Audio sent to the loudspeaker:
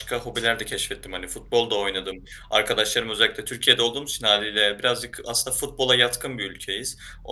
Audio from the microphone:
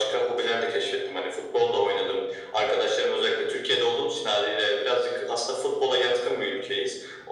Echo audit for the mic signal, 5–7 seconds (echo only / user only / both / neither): echo only